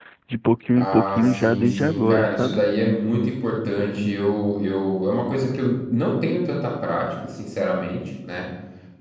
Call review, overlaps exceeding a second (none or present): present